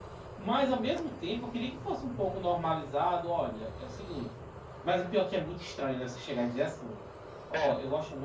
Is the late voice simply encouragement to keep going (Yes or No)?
Yes